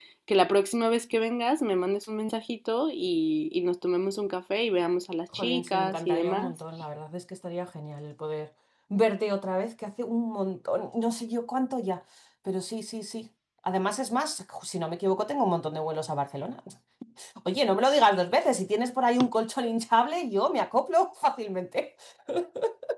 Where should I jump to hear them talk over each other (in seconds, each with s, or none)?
5.3 s